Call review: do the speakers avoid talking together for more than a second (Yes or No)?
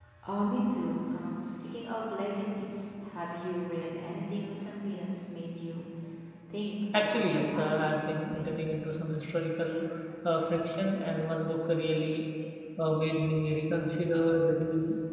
No